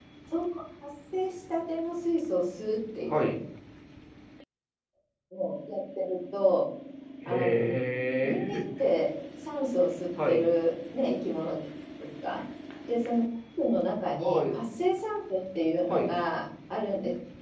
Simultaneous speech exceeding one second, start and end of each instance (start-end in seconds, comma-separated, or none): none